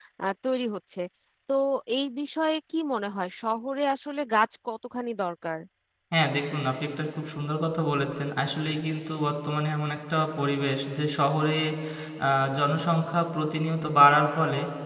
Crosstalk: none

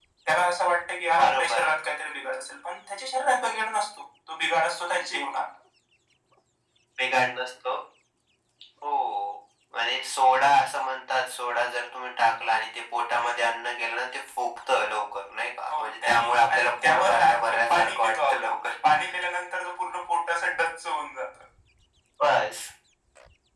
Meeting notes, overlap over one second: present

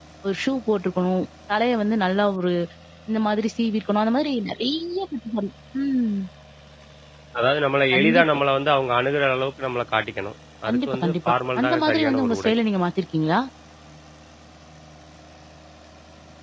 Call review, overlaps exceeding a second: present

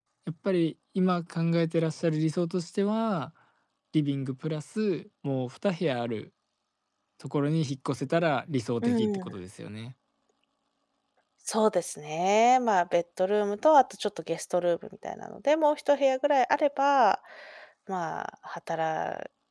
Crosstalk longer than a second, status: none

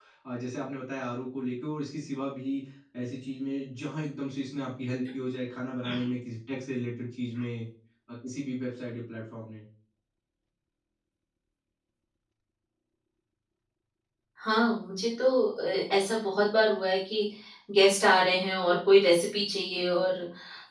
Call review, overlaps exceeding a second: none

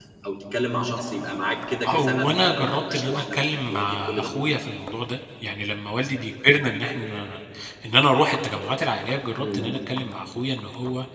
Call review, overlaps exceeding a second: present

